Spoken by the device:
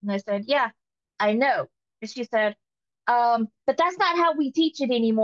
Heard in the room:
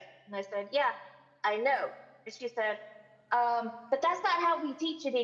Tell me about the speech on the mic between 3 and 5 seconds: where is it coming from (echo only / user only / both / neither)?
echo only